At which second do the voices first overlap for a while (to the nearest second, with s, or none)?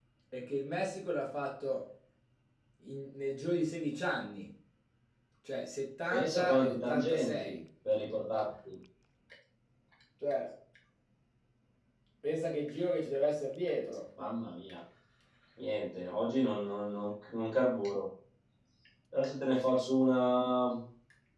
6 s